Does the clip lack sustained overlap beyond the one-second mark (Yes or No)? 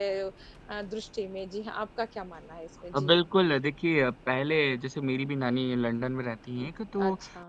Yes